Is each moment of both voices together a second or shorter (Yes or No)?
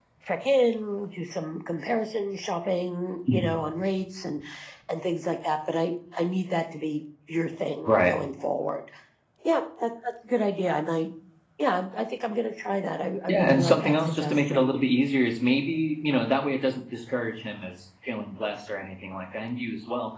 No